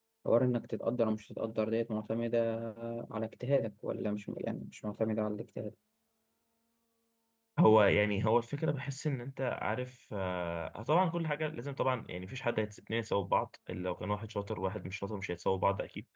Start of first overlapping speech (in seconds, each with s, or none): none